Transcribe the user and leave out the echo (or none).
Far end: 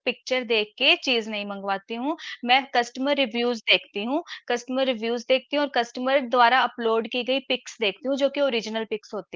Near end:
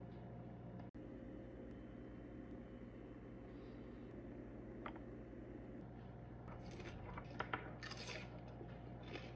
none